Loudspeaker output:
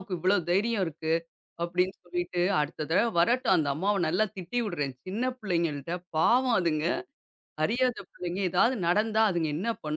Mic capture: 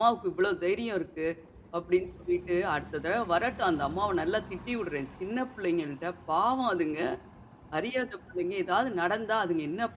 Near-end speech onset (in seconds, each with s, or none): none